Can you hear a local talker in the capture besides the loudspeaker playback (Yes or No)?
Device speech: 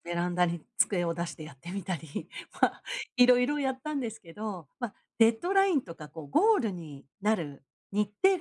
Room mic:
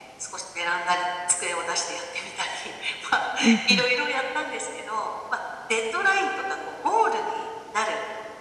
Yes